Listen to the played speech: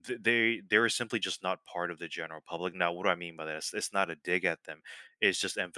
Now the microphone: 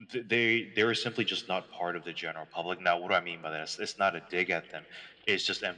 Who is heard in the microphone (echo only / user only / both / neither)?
echo only